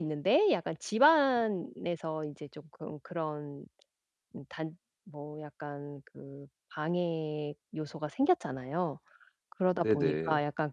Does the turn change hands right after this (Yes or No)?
No